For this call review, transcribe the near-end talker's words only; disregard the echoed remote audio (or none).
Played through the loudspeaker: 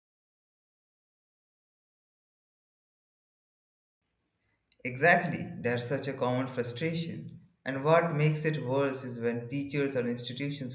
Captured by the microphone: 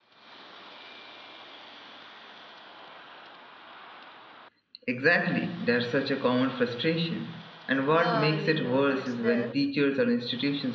yeah i mean uh, that's there